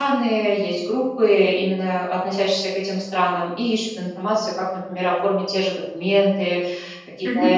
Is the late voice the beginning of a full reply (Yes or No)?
No